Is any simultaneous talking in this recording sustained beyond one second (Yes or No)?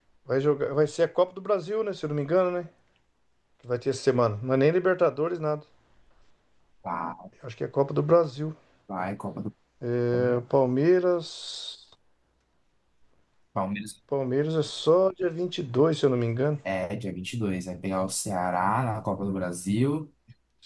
No